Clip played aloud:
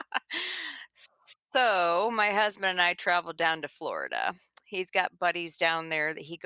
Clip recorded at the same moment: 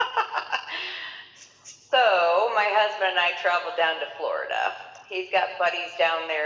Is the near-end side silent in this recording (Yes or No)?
Yes